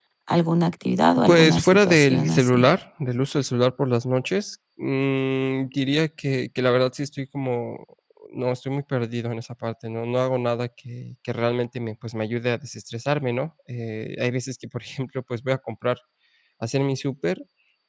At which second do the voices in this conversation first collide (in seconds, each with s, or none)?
1.2 s